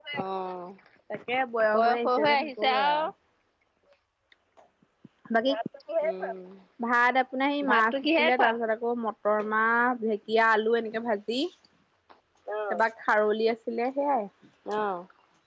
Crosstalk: present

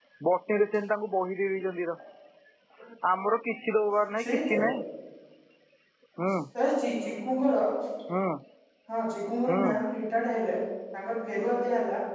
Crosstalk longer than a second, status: none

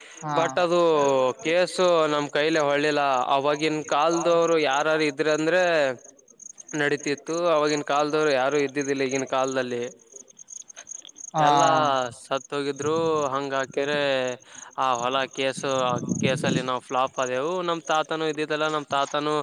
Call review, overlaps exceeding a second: present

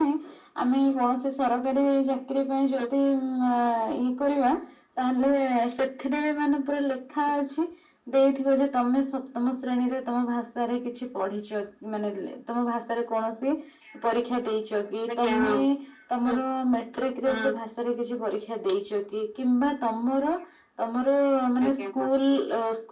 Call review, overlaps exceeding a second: none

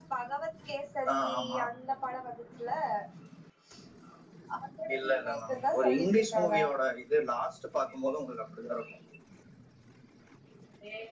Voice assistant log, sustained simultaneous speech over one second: present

